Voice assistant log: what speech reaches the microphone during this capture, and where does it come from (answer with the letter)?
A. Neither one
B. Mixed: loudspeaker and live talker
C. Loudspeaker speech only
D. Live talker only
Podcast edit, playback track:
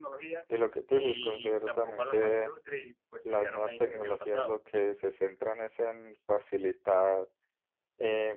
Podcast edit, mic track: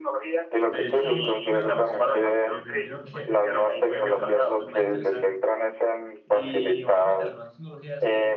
B